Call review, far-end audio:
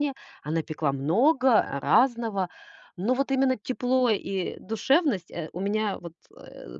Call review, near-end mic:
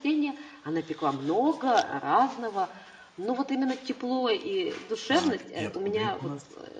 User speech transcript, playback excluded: Так, и откуда это у нас?

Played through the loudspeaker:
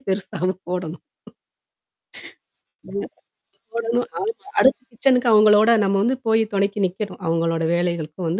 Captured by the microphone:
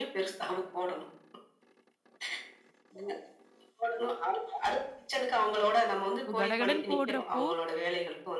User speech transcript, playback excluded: இப்ப கடகடன்னு போடுறப்போ,

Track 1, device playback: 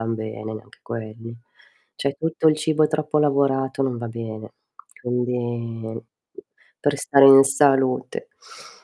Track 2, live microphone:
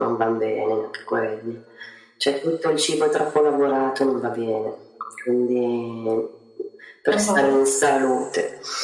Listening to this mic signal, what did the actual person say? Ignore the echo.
Ah-ah.

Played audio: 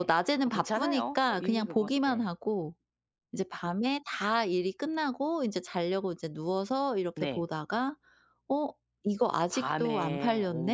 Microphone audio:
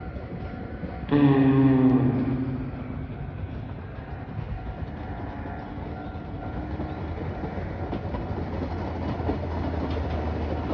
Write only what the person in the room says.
음.

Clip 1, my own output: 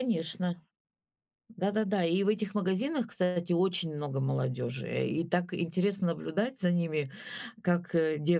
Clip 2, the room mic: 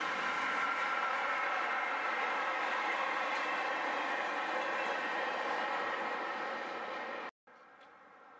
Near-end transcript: none

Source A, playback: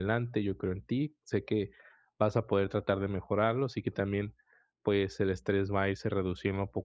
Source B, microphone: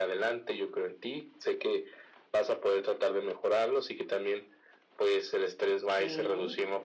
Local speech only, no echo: Okey.

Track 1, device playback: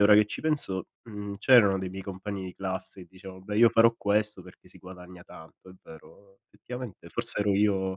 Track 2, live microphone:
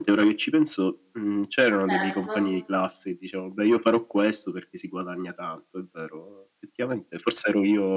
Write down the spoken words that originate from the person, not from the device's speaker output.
Certo.

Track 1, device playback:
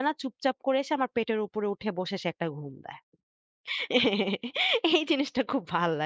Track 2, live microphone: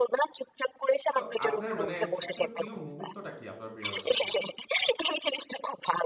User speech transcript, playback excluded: তো আপনার মানে সব থেকে প্রিয় মুহূর্তটা কি আপনার বিড়ালের সাথে?

